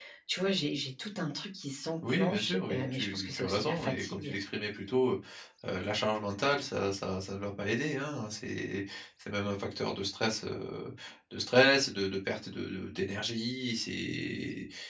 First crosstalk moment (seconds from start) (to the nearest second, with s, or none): 2 s